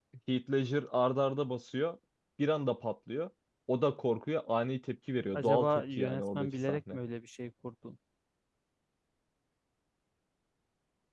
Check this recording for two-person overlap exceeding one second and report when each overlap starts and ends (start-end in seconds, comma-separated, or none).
5.3-7.0